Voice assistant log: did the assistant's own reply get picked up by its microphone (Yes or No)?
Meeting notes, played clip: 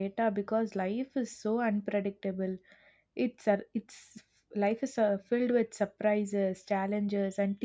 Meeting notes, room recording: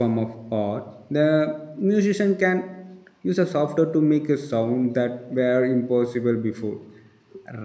No